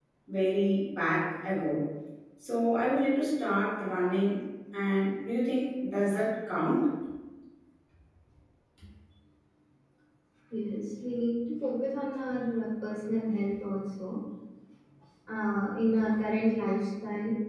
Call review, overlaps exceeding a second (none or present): none